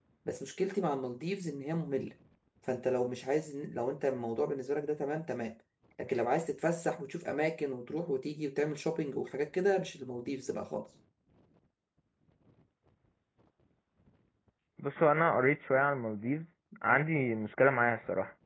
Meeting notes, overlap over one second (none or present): none